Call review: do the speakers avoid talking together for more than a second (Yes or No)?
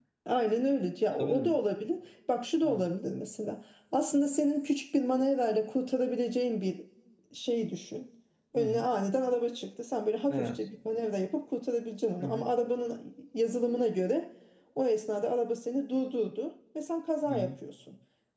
Yes